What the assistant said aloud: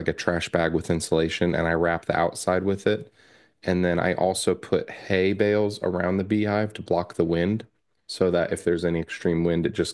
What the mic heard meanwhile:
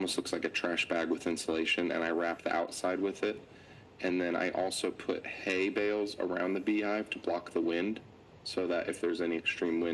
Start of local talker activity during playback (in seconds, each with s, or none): none